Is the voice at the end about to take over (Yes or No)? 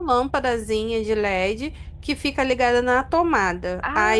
No